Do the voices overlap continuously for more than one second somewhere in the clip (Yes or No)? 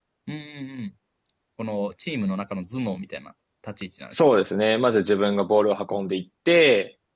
No